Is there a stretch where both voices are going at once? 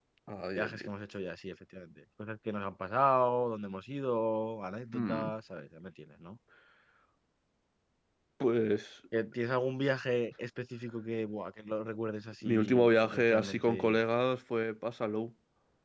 Yes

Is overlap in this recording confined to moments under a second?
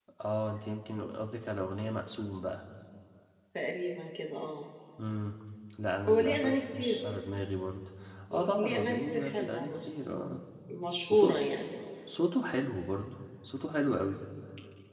No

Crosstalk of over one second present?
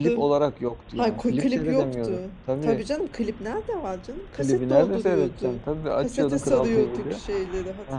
Yes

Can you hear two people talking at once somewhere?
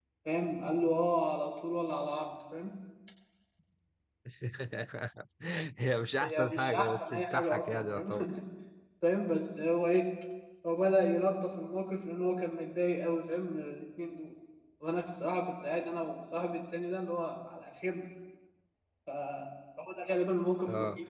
Yes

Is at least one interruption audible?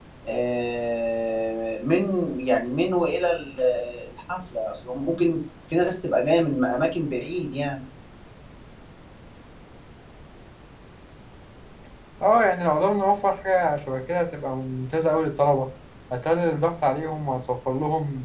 No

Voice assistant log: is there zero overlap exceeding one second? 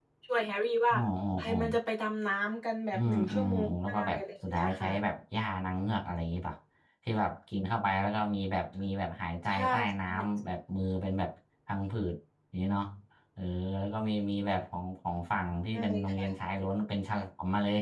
No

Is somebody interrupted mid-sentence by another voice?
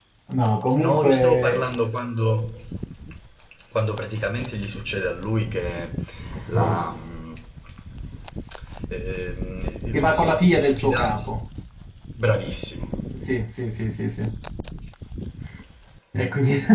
Yes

